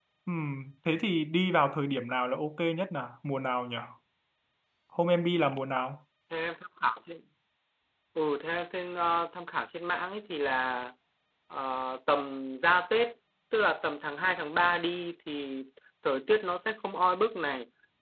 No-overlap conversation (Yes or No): Yes